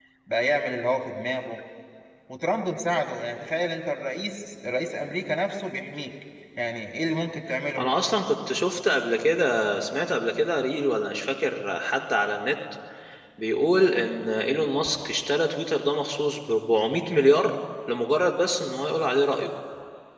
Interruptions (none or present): none